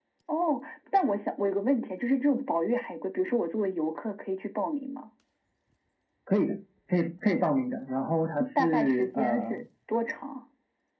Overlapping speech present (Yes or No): Yes